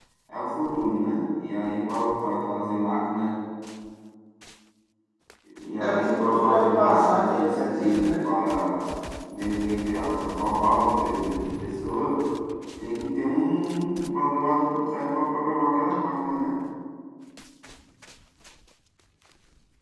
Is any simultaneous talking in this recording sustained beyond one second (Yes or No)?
Yes